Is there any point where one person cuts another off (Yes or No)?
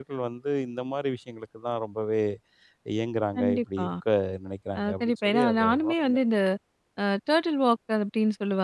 Yes